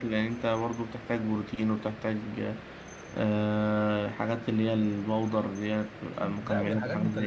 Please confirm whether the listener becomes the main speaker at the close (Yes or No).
Yes